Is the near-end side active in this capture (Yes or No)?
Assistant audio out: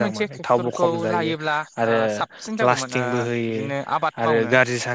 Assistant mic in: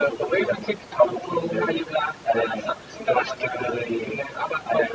No